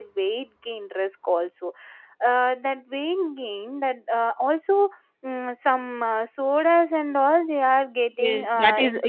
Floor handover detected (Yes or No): Yes